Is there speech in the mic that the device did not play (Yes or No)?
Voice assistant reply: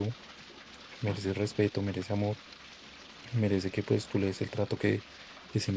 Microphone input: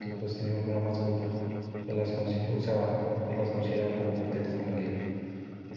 Yes